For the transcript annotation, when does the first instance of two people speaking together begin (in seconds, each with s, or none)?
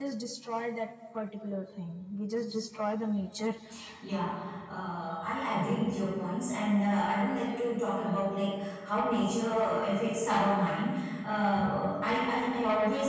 none